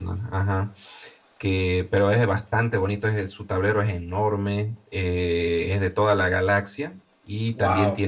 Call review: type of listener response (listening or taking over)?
listening